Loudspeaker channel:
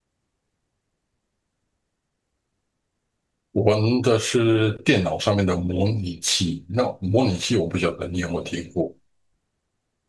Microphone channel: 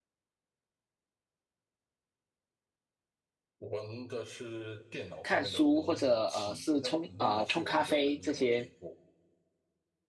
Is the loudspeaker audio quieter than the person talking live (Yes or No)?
Yes